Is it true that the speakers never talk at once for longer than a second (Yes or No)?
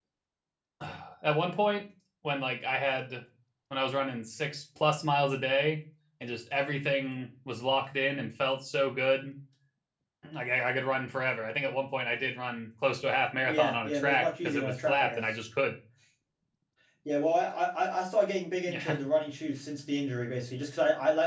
No